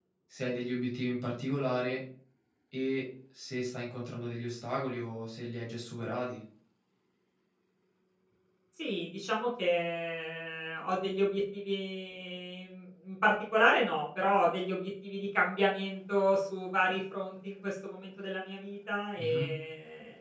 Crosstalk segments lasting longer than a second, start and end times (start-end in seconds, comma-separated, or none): none